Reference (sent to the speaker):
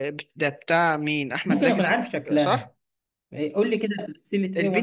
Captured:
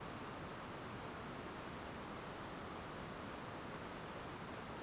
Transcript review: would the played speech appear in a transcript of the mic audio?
No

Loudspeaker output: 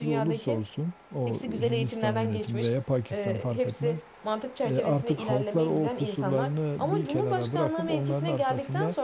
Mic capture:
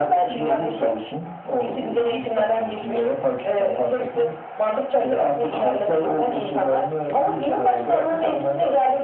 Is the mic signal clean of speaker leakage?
No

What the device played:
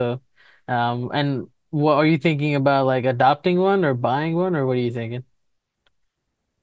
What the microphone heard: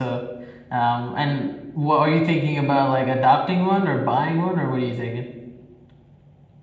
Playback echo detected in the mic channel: Yes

